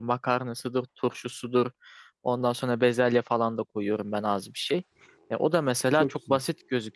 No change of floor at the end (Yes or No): Yes